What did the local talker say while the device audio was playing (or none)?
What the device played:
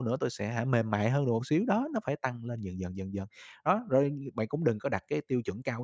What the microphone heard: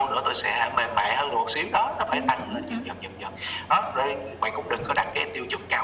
Tiêu chuẩn hả?